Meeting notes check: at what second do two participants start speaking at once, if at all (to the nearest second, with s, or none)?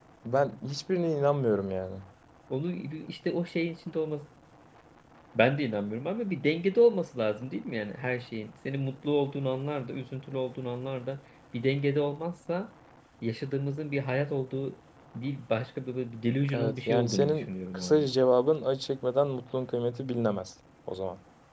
16 s